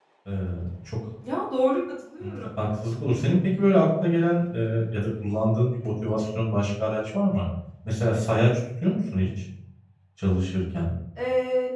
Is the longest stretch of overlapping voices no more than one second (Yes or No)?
Yes